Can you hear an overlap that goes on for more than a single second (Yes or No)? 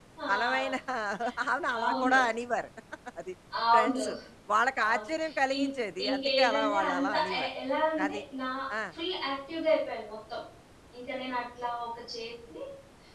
Yes